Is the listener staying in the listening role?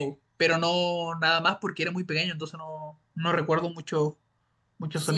No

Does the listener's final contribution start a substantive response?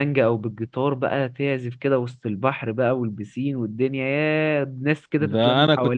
Yes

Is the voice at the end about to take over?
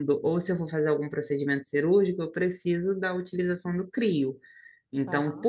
No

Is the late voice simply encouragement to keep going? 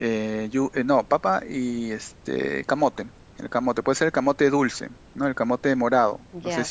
No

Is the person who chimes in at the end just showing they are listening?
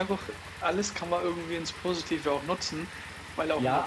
No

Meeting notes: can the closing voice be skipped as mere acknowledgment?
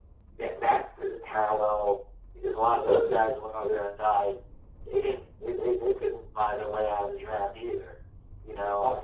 Yes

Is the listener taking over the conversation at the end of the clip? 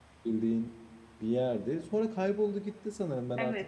Yes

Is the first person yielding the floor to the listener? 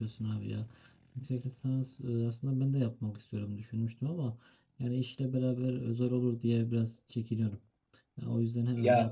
Yes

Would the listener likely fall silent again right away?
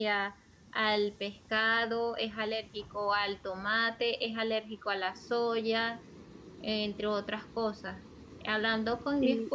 Yes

